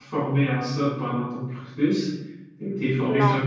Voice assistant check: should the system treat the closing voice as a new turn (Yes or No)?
No